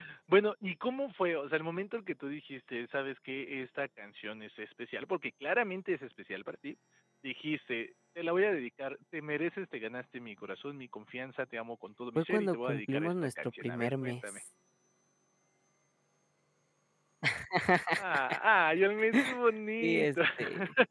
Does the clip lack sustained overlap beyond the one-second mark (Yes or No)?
No